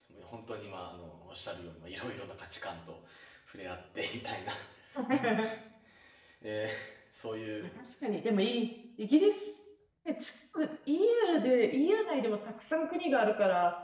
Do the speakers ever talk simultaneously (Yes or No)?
No